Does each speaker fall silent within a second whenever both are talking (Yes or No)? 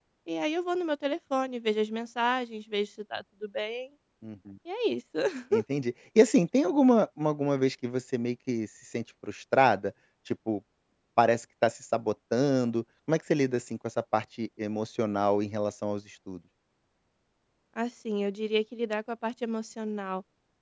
Yes